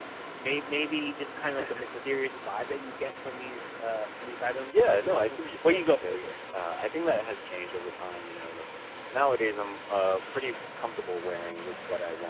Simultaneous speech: Yes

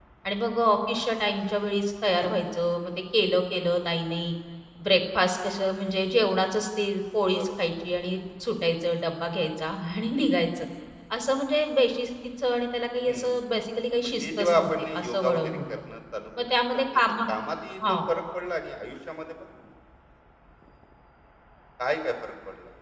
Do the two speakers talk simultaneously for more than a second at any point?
Yes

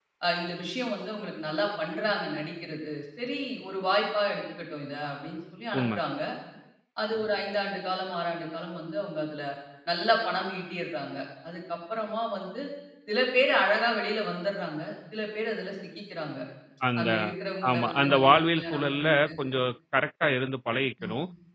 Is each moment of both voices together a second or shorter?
No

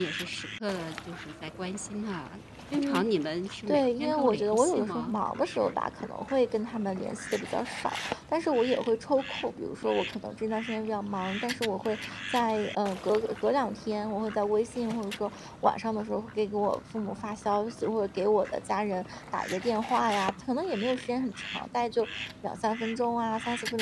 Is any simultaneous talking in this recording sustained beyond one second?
Yes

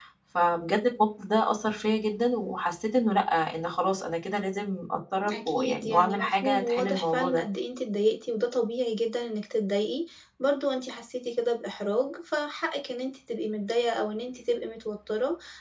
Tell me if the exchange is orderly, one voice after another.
No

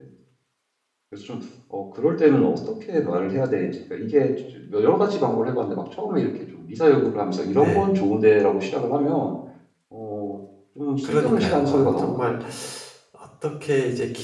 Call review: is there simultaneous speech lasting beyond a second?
Yes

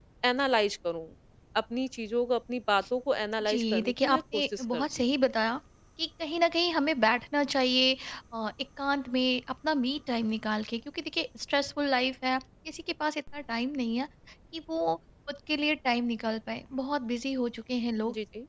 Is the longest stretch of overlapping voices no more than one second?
No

